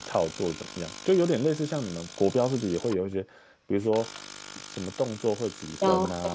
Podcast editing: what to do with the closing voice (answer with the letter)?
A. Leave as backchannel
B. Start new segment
A